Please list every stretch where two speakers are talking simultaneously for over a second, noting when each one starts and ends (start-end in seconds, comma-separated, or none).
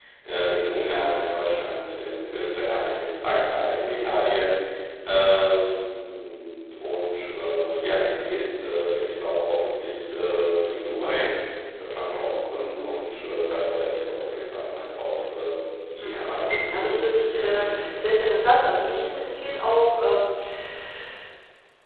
16.6-18.1